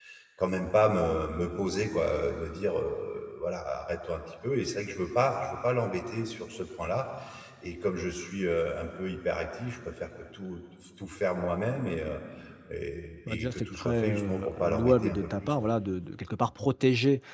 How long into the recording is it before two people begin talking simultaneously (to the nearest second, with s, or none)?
13 s